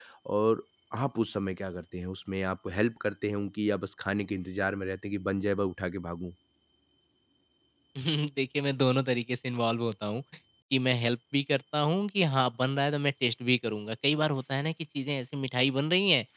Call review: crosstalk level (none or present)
none